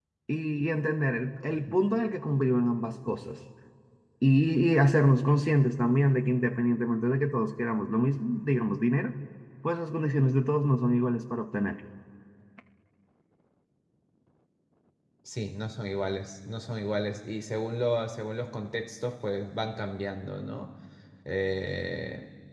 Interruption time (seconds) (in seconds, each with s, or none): none